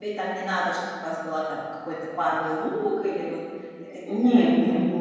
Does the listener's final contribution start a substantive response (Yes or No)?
Yes